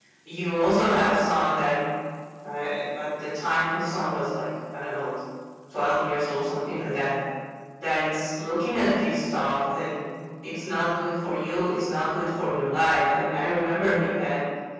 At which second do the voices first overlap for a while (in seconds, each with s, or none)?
none